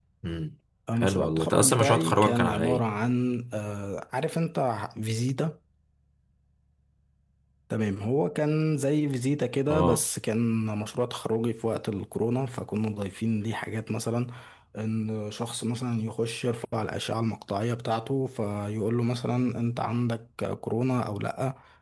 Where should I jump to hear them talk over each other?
1.0 s

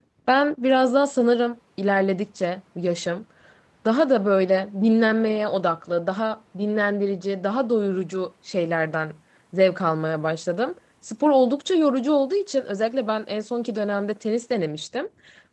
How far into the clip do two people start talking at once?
none

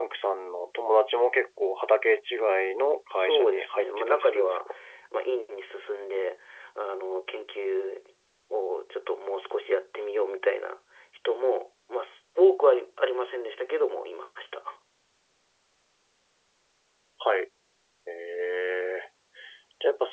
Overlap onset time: 3.1 s

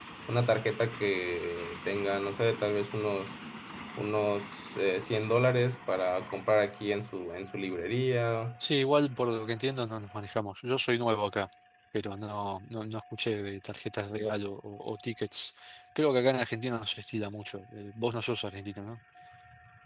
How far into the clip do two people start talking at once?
none

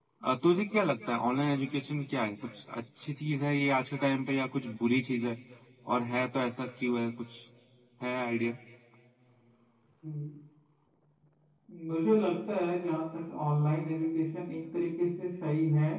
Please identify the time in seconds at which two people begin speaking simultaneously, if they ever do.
none

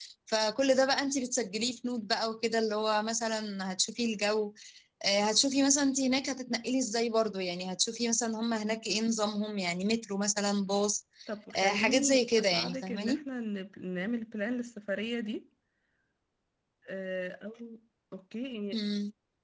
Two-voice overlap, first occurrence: 11.6 s

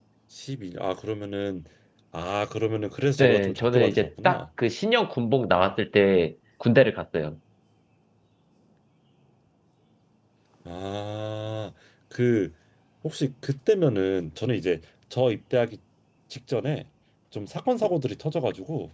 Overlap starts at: 3.2 s

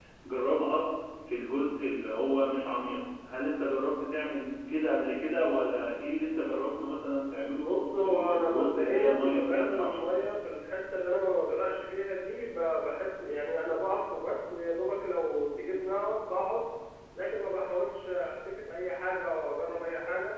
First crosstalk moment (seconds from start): 7.5 s

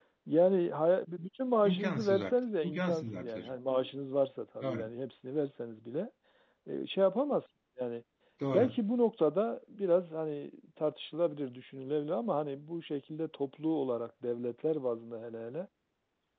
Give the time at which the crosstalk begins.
1.6 s

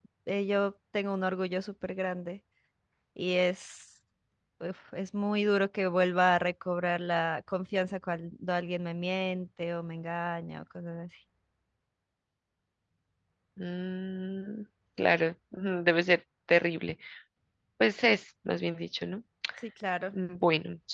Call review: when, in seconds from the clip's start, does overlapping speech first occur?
none

